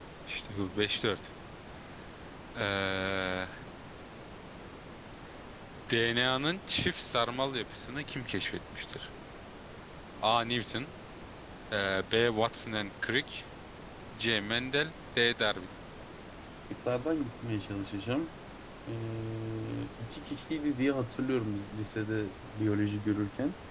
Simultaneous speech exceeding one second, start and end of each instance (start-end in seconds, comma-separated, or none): none